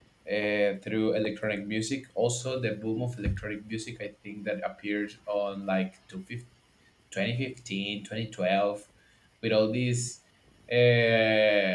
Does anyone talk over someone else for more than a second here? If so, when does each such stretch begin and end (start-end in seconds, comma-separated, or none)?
none